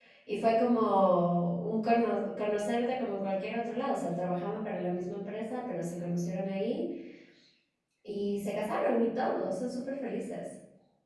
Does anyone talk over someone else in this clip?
No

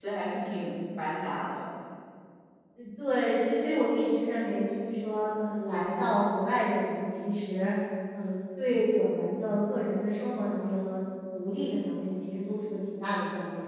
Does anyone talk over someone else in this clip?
No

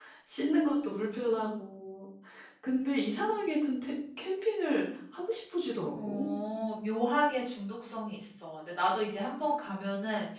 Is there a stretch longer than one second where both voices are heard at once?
No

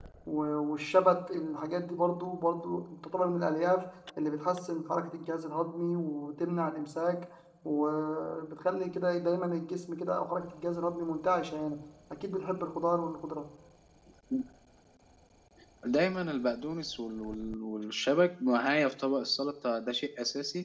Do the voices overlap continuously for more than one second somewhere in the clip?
No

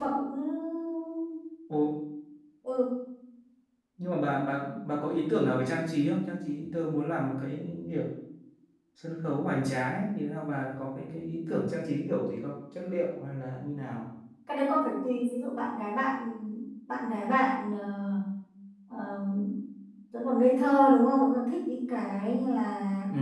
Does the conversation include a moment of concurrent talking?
No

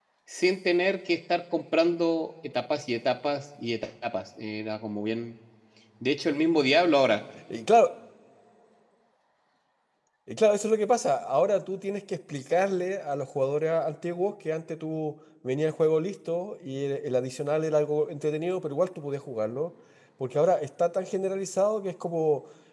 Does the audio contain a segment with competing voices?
No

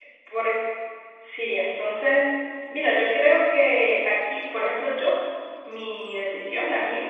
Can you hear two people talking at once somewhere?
No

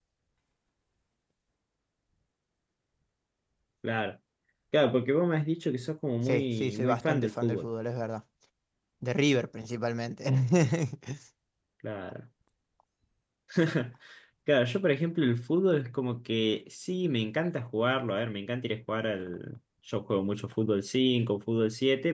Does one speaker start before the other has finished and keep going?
Yes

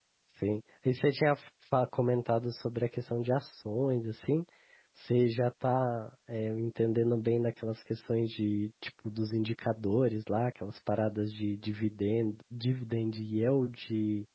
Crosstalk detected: No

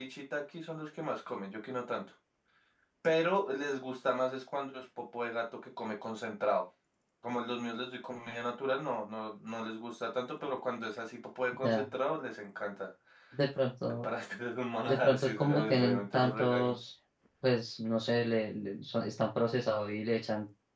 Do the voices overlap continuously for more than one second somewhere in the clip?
Yes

